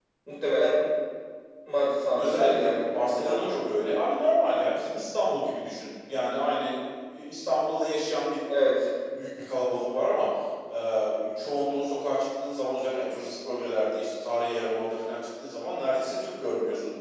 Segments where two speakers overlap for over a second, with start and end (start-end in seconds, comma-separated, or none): 2.2-3.6